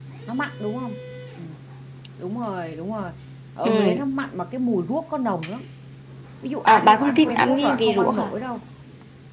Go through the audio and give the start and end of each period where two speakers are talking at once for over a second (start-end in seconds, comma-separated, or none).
6.7-8.3